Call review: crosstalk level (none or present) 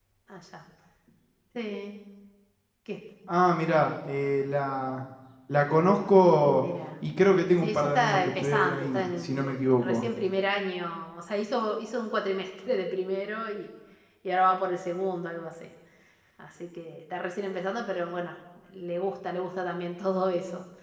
present